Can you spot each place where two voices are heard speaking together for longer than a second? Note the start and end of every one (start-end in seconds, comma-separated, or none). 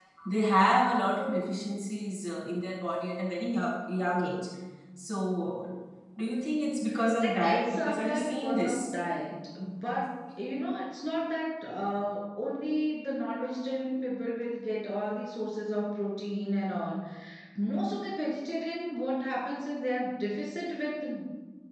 7.2-8.8